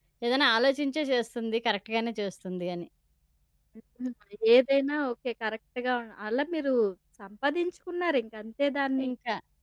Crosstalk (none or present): none